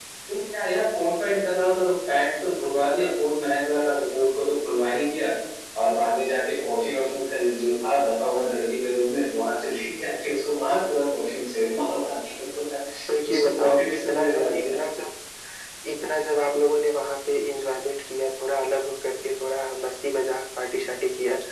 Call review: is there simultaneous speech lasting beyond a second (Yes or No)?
Yes